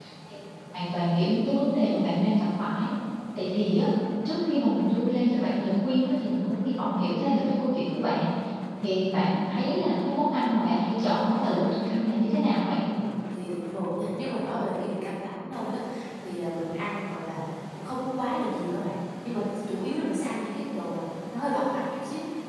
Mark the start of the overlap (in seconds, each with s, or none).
none